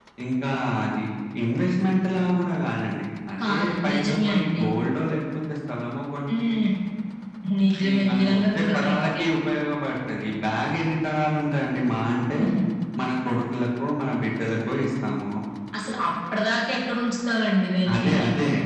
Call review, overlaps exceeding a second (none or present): present